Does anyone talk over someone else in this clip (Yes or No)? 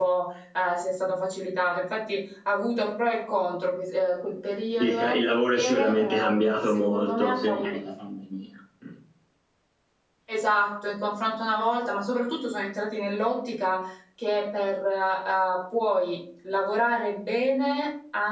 Yes